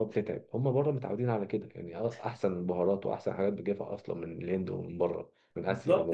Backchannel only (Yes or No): No